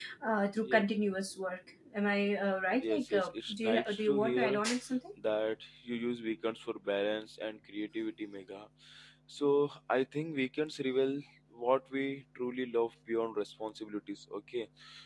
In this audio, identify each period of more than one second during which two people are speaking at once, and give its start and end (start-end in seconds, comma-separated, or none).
2.8-4.6